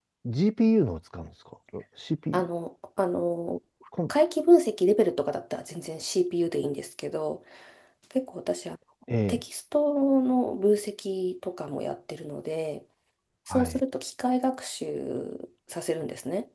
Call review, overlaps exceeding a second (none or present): none